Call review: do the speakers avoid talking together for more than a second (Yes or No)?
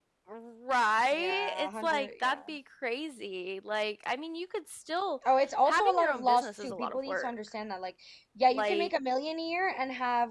No